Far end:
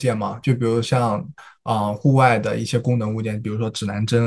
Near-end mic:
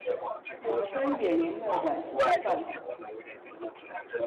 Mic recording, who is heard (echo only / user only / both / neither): both